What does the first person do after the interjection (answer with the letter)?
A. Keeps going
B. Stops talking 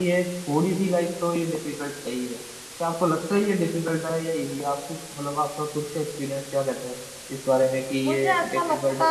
B